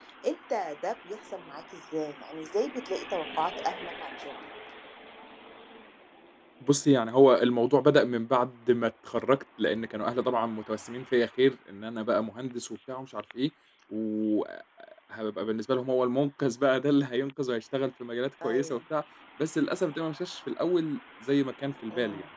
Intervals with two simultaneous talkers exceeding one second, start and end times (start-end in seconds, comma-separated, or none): none